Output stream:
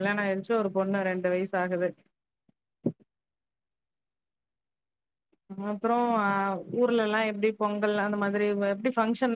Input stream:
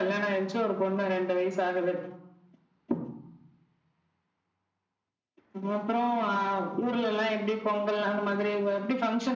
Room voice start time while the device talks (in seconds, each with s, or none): none